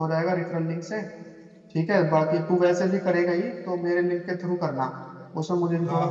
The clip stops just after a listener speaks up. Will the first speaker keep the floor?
No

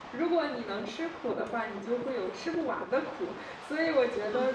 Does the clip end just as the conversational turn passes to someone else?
No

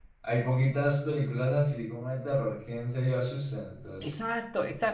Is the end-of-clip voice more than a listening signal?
Yes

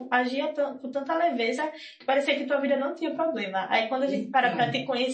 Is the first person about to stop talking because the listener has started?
No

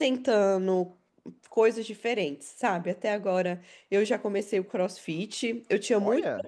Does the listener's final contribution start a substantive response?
No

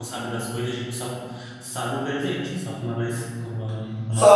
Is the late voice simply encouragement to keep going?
No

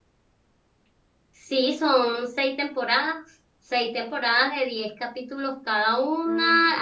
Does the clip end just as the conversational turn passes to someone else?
No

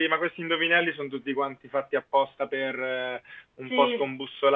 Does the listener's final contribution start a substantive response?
No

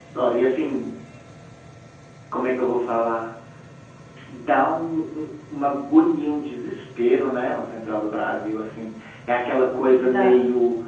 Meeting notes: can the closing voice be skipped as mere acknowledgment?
Yes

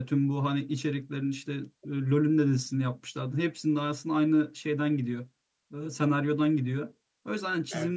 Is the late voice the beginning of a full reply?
No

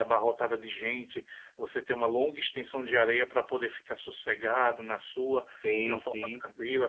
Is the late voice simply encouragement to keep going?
Yes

